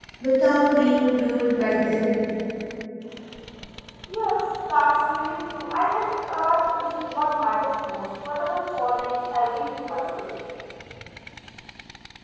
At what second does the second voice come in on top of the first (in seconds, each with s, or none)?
none